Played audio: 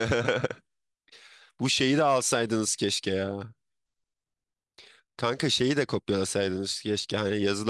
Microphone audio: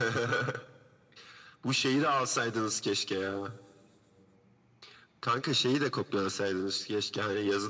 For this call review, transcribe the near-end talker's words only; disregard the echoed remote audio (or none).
none